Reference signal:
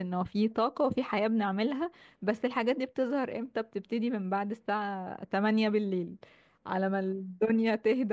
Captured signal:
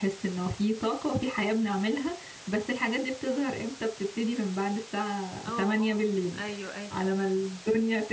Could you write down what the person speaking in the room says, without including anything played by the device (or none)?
اه اه أيوه أيوه